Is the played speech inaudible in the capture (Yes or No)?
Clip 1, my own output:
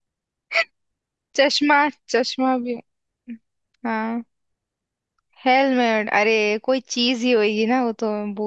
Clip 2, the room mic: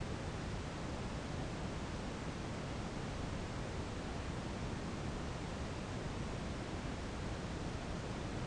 Yes